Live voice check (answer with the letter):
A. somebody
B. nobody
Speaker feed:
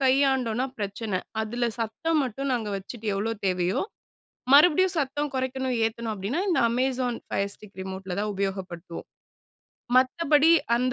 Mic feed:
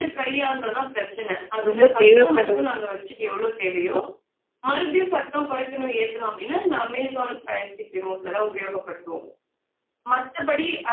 A